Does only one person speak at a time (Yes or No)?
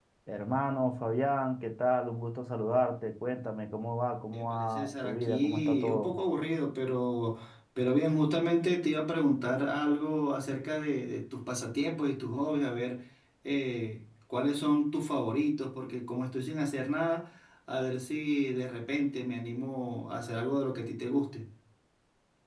No